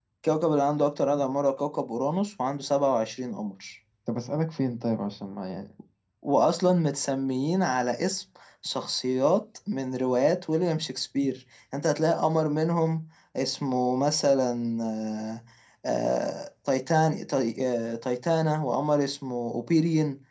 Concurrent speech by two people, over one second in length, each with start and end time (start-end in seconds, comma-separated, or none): none